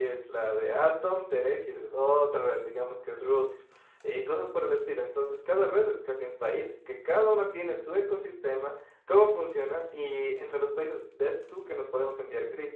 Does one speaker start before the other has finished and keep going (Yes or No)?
No